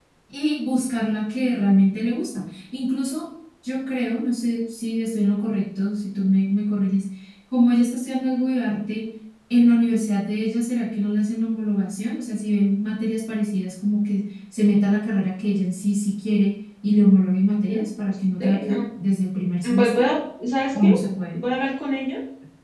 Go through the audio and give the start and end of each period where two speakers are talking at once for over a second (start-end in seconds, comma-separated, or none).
none